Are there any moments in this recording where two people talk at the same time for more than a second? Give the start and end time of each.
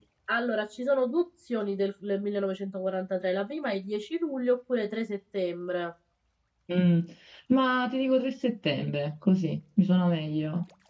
none

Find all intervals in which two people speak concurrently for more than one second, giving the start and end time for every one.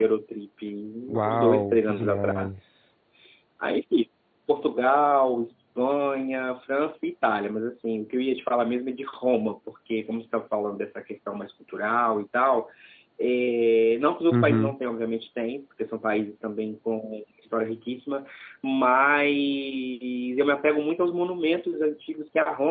1.2-2.6

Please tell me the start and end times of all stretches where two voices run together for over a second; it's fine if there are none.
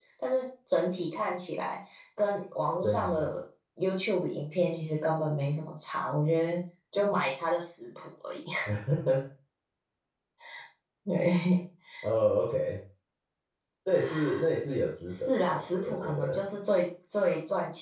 15.1-16.4

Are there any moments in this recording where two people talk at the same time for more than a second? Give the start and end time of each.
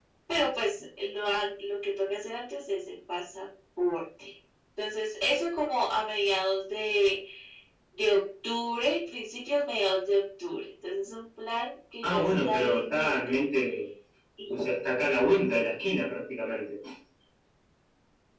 12.0-13.4

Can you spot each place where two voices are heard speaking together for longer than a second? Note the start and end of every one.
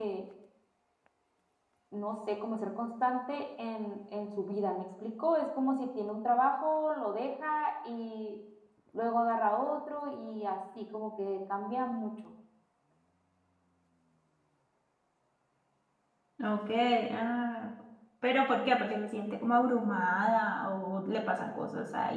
none

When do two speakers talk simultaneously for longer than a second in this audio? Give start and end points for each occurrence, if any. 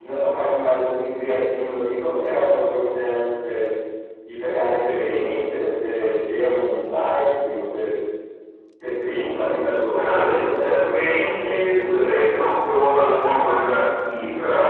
9.9-12.2

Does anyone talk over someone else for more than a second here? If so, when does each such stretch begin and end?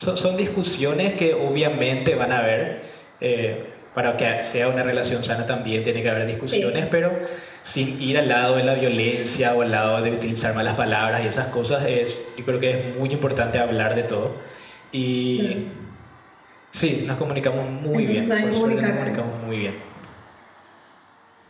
17.9-19.2

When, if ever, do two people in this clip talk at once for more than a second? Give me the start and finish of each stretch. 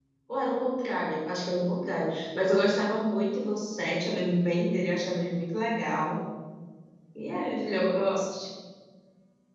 none

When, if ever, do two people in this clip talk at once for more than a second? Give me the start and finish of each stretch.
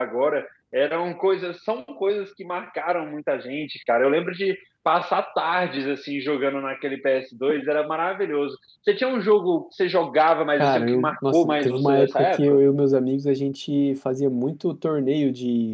10.6-12.6

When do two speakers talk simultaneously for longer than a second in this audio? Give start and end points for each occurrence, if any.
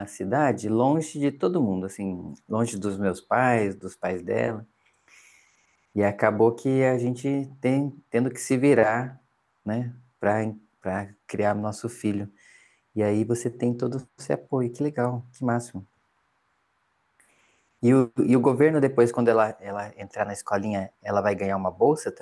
none

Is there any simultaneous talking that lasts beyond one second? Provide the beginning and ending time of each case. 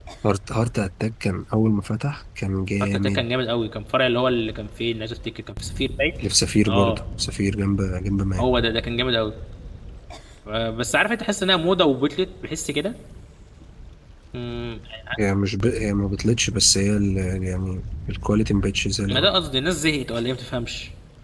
none

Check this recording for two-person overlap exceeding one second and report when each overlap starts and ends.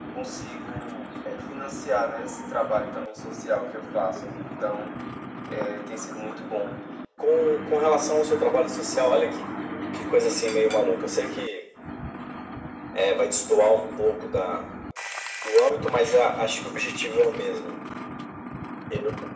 none

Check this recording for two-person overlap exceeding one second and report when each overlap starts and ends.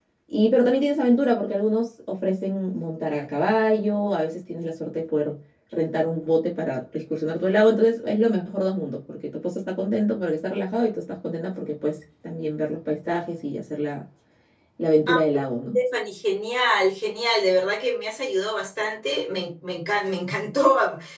none

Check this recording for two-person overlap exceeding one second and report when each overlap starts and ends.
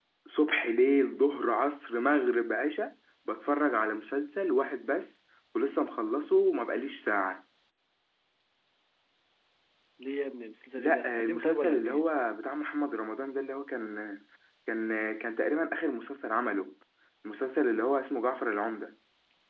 10.8-12.0

